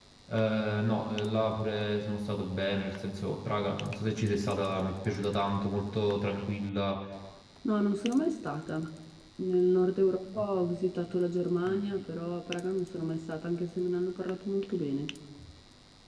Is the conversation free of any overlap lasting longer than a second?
Yes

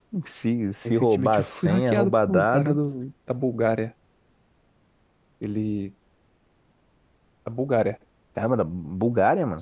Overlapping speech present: Yes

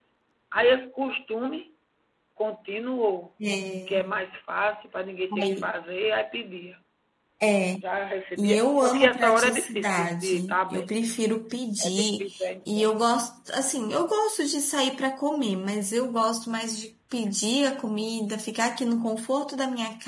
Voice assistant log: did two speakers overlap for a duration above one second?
Yes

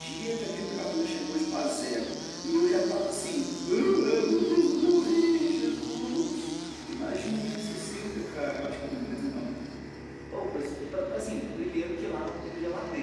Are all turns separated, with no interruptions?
Yes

